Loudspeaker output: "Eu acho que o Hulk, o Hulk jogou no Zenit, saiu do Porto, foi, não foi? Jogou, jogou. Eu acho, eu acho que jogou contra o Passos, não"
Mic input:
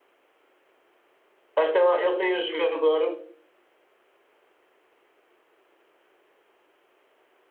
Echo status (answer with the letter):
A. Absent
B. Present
A